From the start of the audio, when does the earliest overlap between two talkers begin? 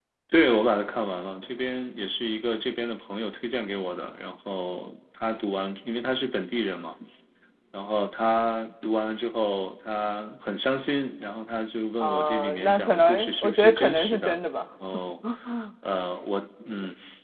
12.0 s

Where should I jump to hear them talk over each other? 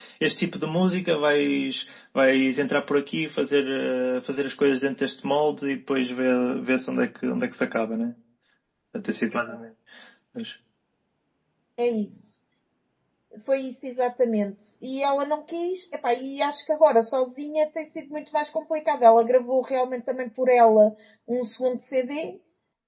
none

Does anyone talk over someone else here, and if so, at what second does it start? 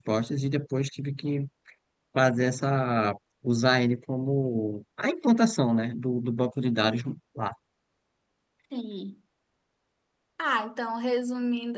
none

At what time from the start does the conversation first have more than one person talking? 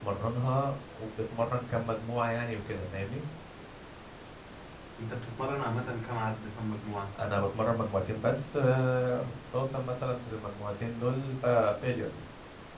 none

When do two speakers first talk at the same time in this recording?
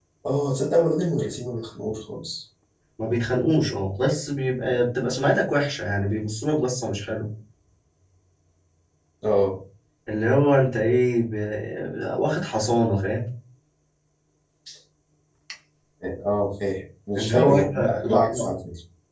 17.1 s

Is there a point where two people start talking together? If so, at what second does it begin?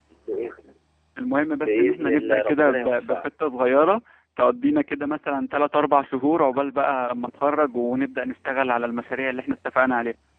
1.6 s

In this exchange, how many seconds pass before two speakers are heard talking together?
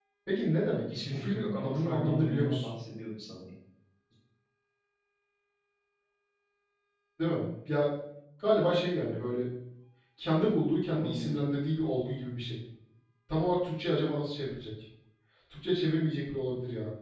1.1 s

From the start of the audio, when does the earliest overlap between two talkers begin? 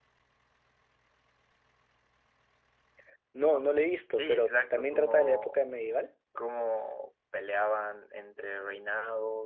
4.2 s

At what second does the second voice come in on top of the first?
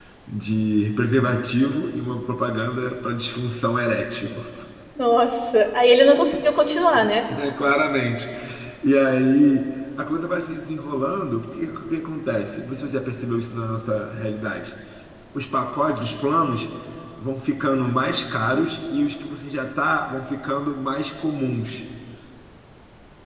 none

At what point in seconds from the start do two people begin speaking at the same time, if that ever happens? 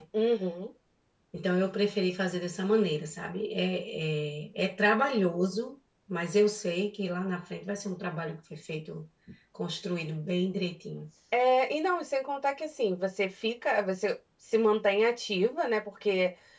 none

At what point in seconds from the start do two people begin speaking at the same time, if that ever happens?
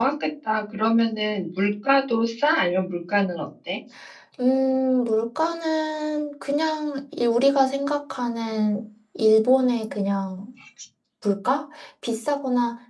none

